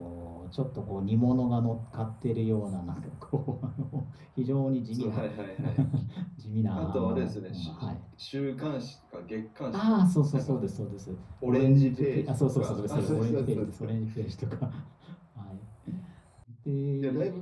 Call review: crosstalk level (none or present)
present